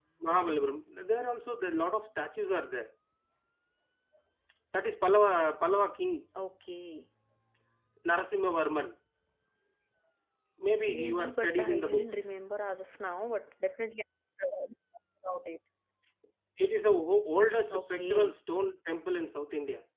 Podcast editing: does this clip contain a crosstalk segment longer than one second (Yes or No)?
Yes